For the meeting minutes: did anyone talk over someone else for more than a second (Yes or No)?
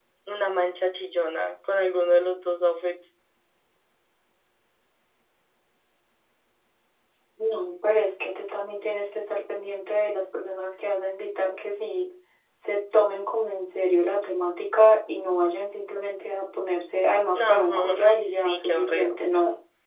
Yes